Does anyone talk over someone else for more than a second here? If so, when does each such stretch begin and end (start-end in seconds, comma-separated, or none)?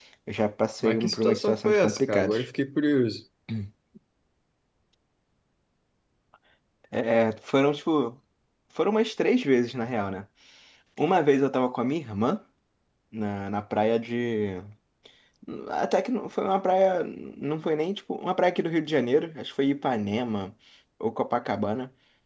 0.8-2.4